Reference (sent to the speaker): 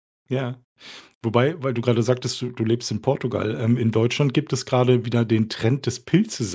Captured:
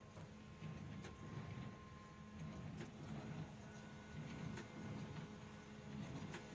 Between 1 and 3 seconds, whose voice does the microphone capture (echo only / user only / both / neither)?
neither